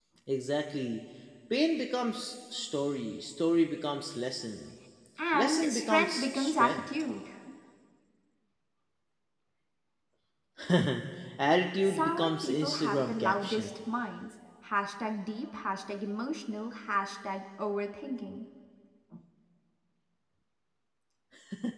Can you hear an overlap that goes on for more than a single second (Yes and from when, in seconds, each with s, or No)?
Yes, from 5.3 s